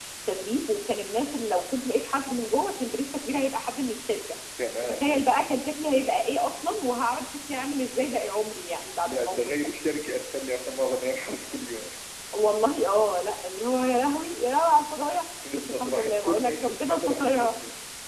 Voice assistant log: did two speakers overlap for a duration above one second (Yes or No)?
Yes